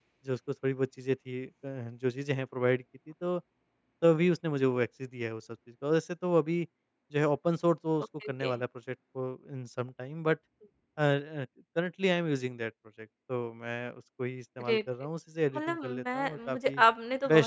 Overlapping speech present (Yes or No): Yes